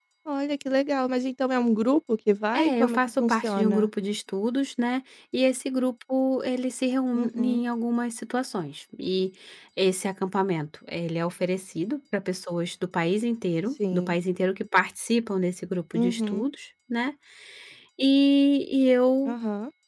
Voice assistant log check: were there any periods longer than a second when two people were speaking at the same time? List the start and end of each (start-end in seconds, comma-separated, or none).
2.5-3.9